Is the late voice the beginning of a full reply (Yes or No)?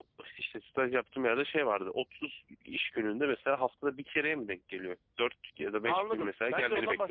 Yes